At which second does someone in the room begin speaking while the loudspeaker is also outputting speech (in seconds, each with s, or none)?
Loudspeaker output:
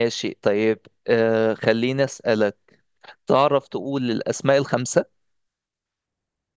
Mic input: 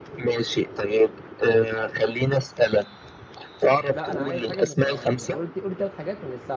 3.9 s